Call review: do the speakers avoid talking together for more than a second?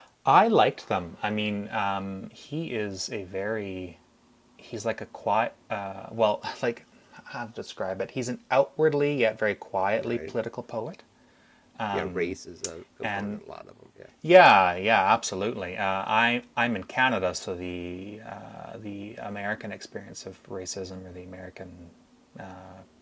Yes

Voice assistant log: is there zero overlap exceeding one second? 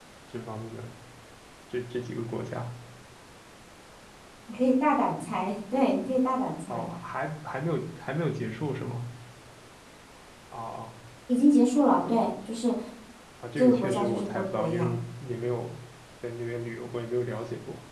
No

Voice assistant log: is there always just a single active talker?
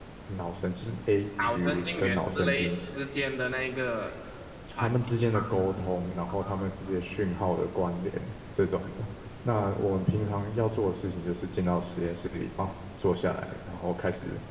No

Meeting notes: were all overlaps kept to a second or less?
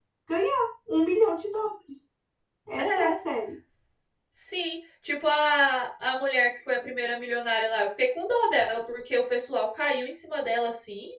Yes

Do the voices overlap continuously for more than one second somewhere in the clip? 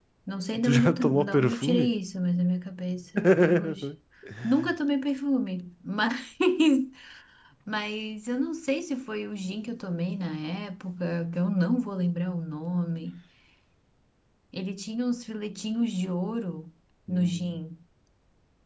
Yes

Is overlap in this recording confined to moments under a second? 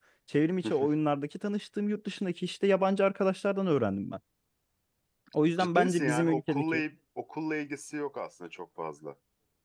No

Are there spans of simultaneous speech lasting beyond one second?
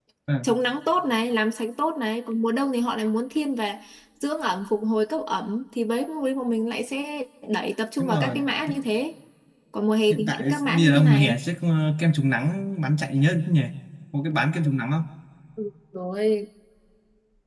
Yes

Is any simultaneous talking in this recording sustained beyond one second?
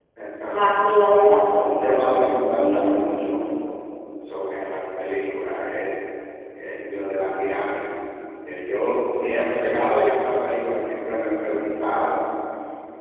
Yes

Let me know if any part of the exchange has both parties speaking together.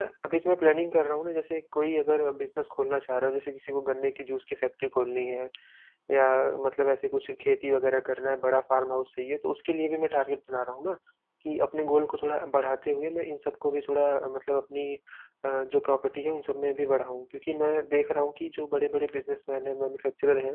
No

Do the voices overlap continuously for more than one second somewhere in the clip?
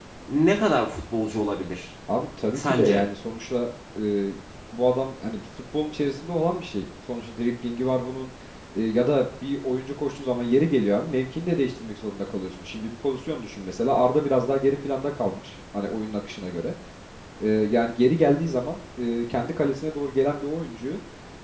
No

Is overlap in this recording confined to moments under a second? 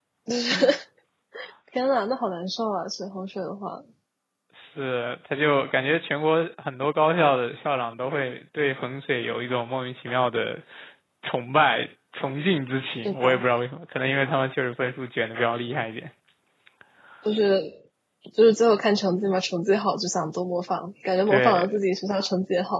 Yes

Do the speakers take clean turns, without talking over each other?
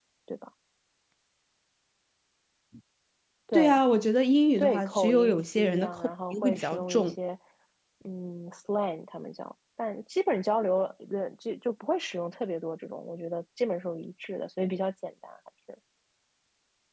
No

